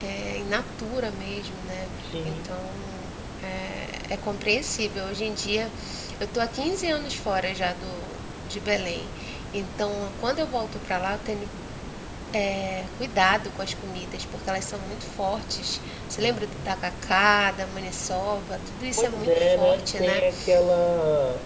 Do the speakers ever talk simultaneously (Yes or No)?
Yes